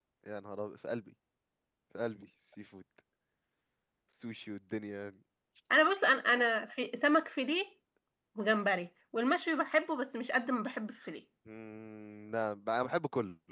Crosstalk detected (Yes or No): No